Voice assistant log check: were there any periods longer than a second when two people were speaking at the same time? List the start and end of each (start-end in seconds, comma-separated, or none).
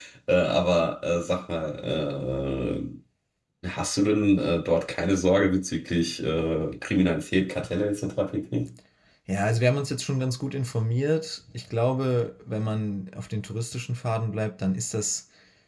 none